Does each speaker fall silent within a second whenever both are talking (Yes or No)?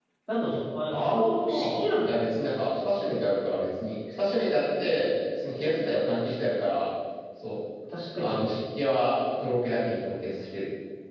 No